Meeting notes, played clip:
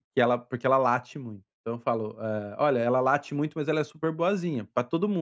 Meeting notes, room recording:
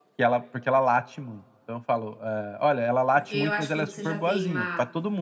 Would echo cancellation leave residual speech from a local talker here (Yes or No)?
Yes